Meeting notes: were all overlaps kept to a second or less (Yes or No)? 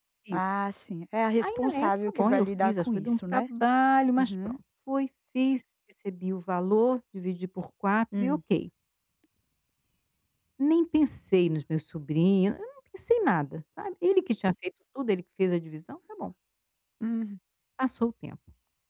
No